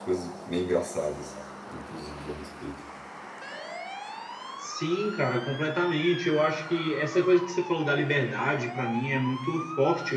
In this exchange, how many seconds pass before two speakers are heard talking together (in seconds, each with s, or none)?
none